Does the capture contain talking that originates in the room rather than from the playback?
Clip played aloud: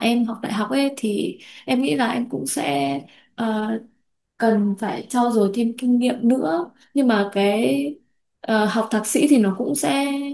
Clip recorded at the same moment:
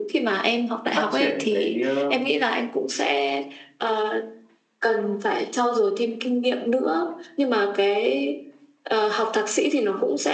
Yes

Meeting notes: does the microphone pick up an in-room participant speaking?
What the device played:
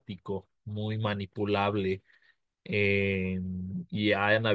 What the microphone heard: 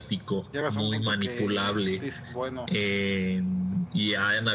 Yes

